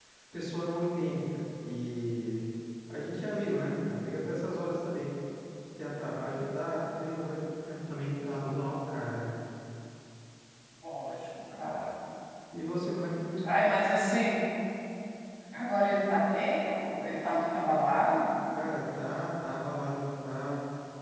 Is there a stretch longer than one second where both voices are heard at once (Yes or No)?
No